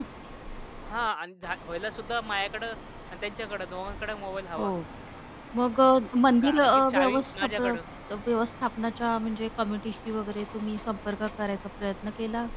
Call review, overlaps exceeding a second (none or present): present